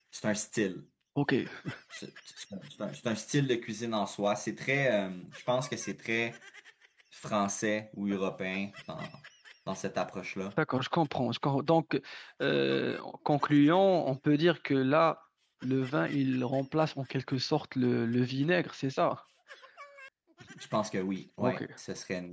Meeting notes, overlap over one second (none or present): none